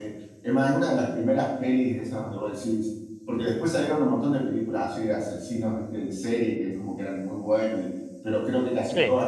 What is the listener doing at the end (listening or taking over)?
listening